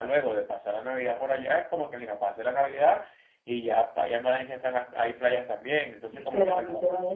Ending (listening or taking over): taking over